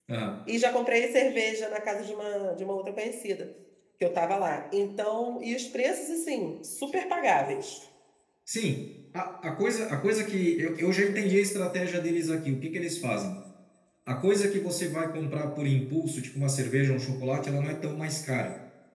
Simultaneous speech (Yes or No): No